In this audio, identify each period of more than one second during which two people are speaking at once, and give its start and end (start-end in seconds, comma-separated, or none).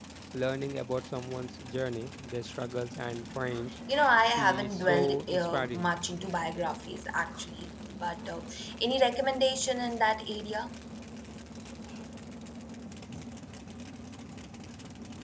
4.2-5.9